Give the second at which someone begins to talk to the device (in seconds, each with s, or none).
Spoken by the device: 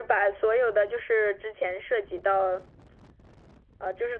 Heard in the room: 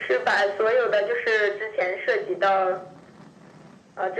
none